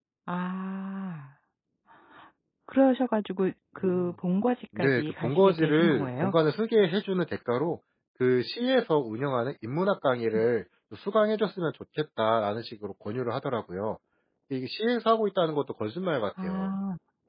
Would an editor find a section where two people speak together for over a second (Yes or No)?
Yes